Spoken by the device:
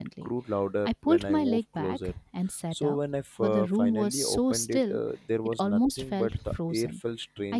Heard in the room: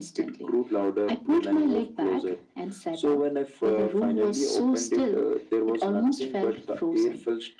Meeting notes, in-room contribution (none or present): none